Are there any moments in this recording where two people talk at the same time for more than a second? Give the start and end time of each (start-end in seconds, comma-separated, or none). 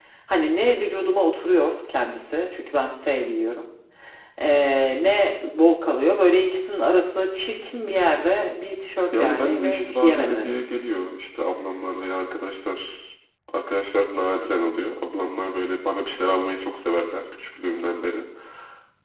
9.1-10.6